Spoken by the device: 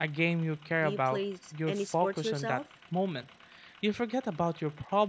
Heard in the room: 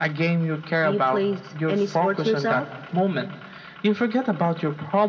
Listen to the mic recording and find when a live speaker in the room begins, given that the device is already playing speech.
none

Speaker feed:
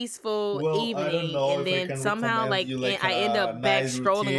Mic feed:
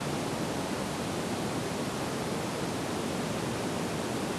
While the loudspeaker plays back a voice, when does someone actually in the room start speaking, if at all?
none

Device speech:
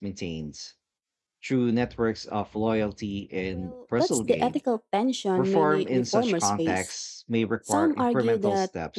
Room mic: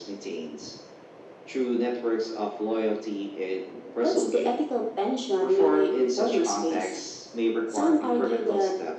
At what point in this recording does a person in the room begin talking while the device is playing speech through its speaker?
none

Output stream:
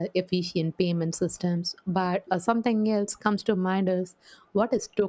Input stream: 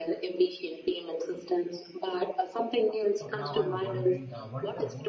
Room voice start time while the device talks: 3.2 s

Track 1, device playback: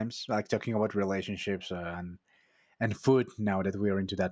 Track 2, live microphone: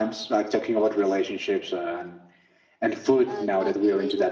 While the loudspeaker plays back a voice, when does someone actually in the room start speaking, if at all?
3.2 s

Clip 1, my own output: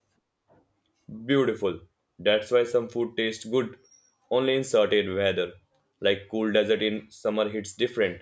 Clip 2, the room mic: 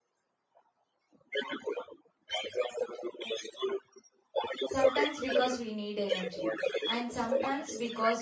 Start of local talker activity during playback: 4.7 s

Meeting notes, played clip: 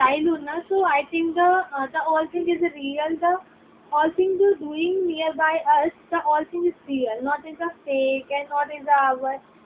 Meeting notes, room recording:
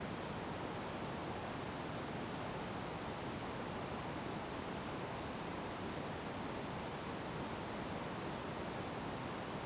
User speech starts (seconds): none

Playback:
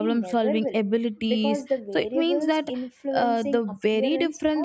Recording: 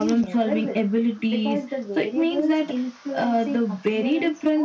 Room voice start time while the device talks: none

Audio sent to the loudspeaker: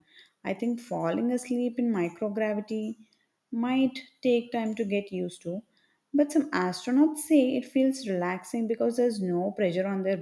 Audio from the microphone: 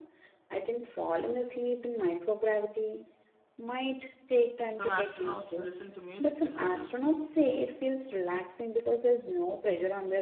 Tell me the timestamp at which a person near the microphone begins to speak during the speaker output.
4.6 s

